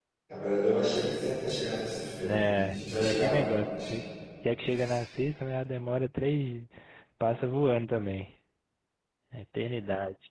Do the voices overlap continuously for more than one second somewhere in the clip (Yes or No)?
Yes